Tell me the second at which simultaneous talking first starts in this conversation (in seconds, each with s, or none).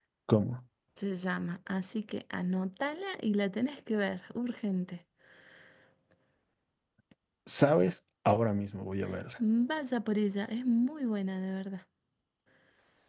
none